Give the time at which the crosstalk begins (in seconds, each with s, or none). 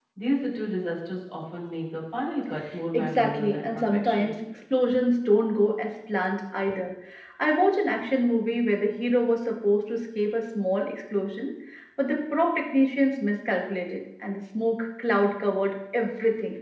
2.9 s